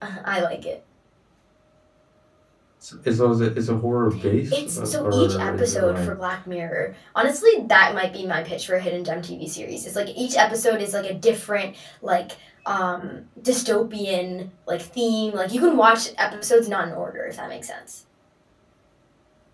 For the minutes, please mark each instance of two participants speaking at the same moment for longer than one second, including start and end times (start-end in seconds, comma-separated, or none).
4.5-6.1